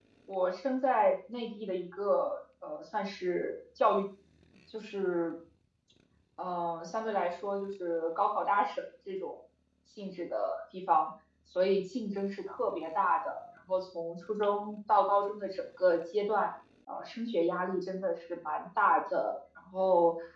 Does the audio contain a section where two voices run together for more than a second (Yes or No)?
No